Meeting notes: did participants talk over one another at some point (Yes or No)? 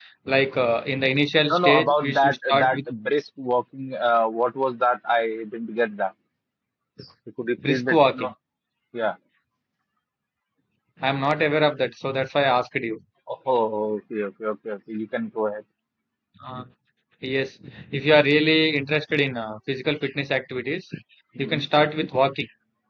Yes